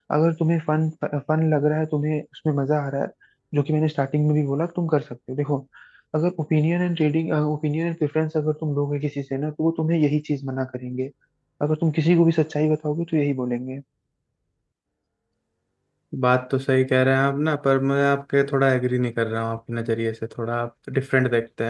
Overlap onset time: none

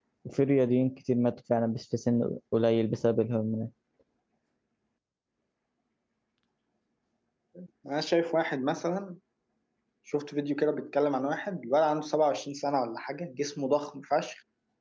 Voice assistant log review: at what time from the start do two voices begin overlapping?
none

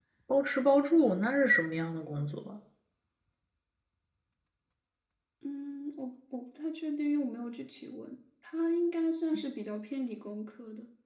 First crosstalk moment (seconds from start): none

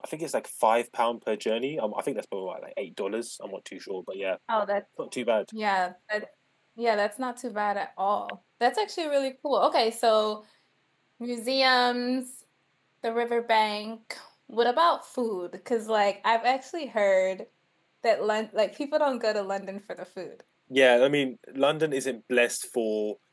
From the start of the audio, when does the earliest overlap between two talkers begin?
none

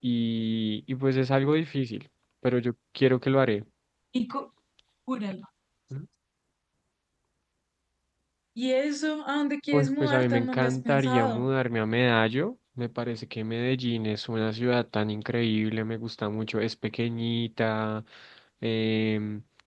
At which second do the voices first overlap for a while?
9.7 s

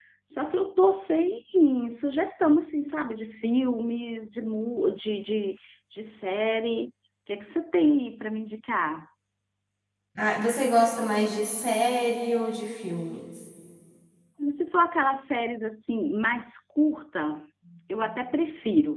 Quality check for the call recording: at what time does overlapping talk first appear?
none

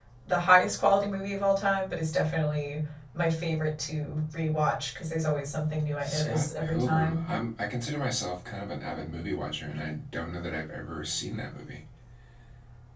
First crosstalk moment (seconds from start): 6.0 s

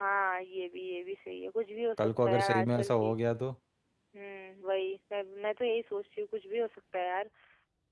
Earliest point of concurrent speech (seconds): 2.0 s

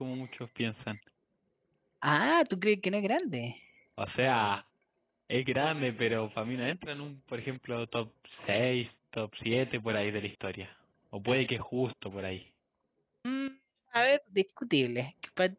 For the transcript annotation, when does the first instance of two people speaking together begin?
none

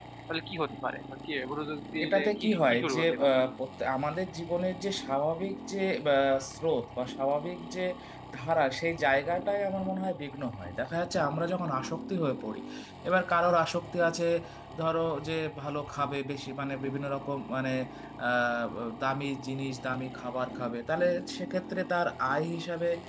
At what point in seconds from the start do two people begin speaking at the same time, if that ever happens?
2.0 s

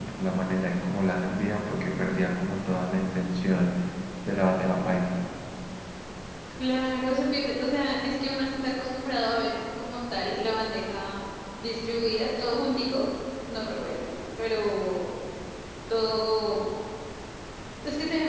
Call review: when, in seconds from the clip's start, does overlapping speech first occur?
none

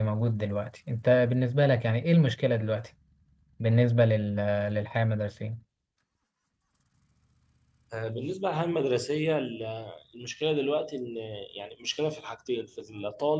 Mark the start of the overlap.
none

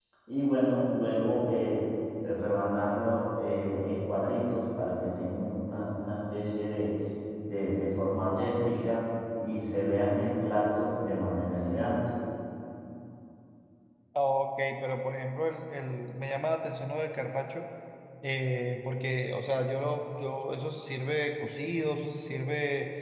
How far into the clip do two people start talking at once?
none

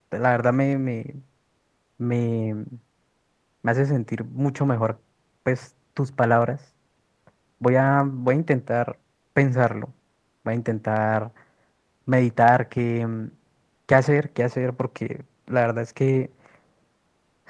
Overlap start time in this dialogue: none

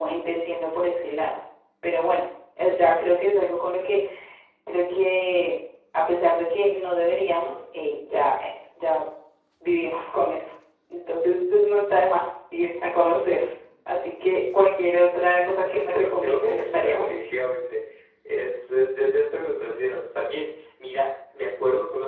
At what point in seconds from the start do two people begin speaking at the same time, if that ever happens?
15.7 s

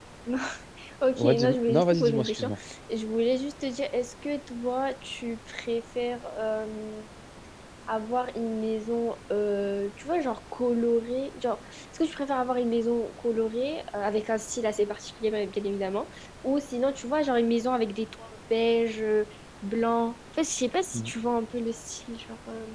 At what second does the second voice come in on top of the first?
1.2 s

